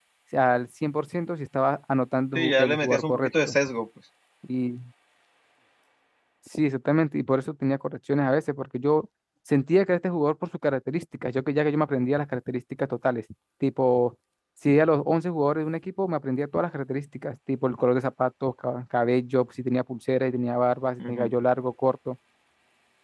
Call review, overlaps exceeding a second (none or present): present